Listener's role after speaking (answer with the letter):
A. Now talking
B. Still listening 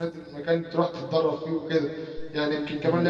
B